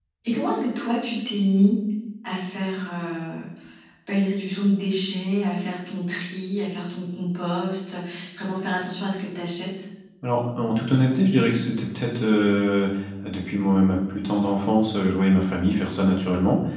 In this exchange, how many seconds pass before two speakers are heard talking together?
none

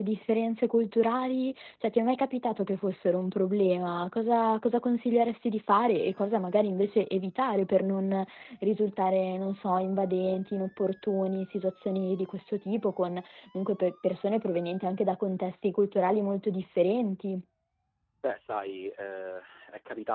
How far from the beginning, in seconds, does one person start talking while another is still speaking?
none

